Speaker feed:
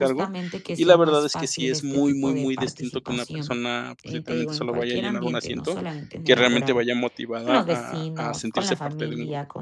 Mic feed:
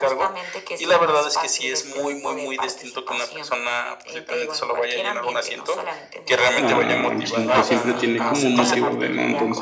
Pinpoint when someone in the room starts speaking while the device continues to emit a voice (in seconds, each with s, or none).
6.5 s